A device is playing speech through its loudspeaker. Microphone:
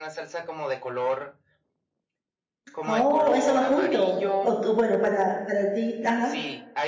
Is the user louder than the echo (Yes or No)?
Yes